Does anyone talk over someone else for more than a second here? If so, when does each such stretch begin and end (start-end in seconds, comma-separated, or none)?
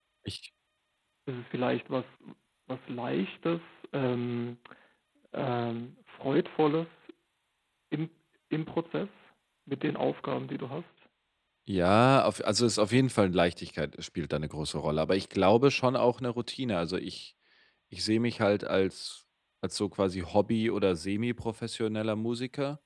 none